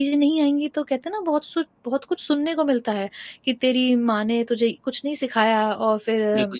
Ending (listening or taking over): taking over